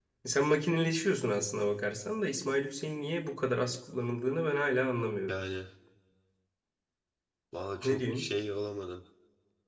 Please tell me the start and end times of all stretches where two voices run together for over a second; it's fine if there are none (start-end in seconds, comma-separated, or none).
none